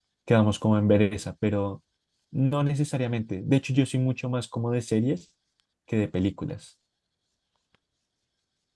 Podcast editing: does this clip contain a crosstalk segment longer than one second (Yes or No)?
No